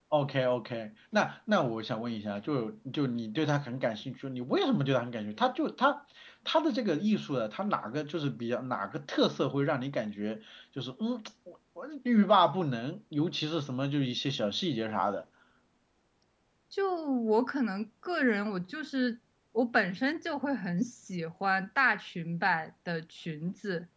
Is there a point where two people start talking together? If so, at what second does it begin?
none

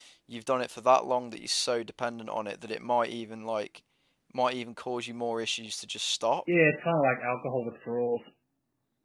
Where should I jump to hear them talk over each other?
none

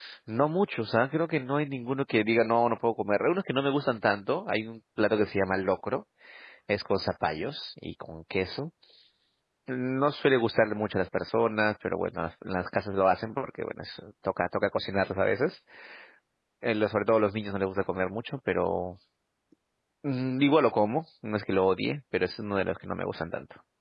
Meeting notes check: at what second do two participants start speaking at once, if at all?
none

